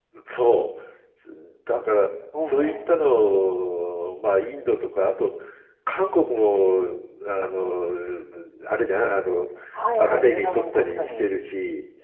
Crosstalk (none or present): present